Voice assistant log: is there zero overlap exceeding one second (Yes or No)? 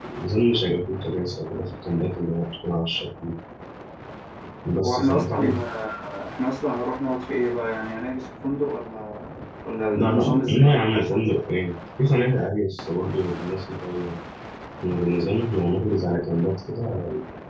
No